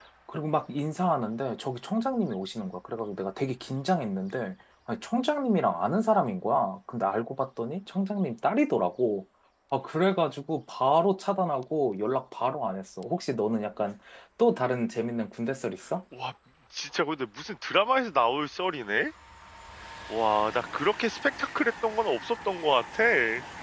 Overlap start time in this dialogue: none

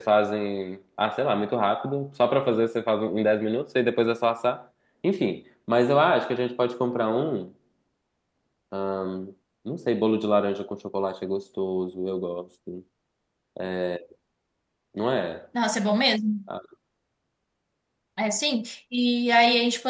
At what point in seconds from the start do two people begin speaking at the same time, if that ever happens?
none

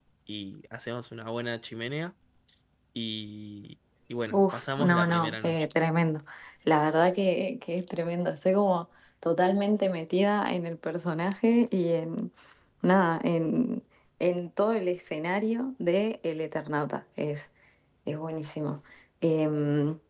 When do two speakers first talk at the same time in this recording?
4.3 s

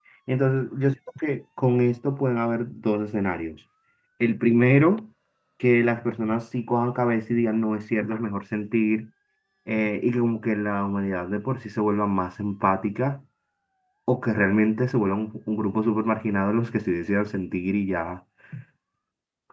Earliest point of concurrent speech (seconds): none

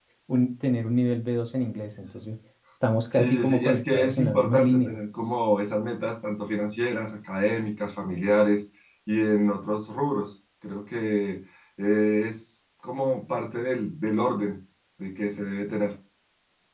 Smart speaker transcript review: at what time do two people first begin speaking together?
3.1 s

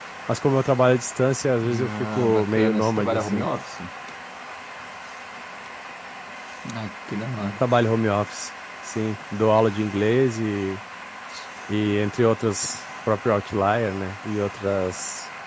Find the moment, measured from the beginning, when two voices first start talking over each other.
1.6 s

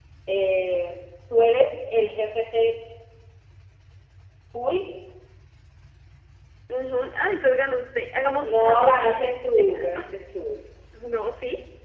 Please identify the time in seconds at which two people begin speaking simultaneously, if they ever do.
8.2 s

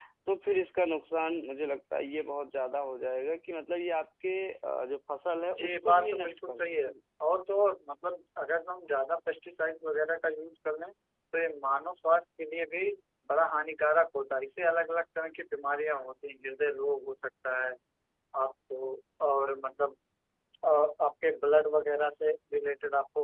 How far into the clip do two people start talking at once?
5.6 s

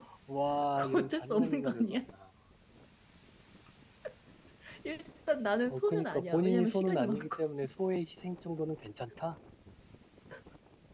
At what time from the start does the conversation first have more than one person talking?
0.7 s

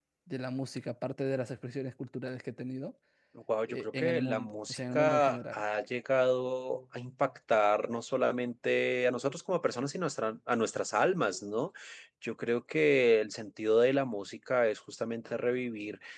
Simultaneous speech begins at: 3.7 s

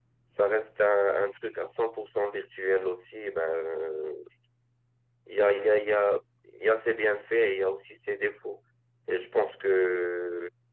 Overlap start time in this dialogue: none

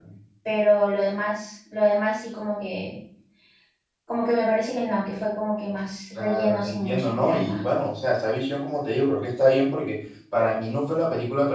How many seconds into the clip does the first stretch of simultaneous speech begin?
6.2 s

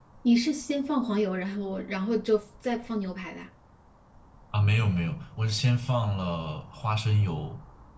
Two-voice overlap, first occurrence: none

